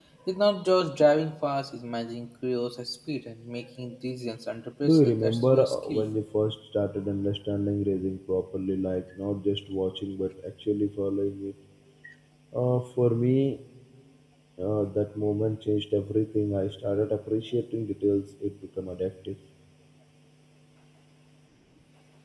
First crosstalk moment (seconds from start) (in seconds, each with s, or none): 4.8 s